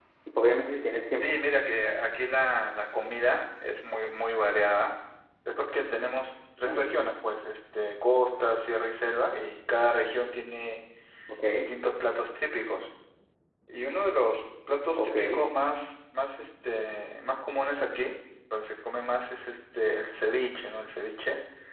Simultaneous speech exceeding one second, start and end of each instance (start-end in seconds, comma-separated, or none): none